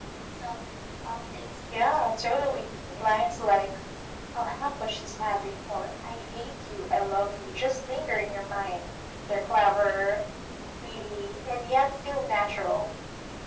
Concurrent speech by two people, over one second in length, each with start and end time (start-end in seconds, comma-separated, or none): 1.7-3.1